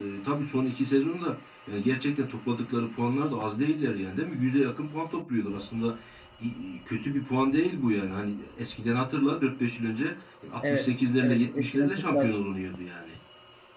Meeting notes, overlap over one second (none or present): present